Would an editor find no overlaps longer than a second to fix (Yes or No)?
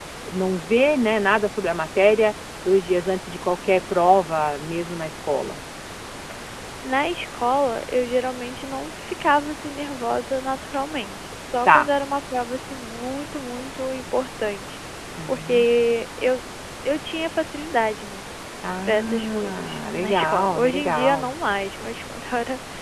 No